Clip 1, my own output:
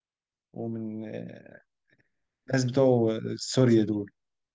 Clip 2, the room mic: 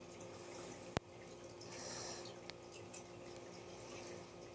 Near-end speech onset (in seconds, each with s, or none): none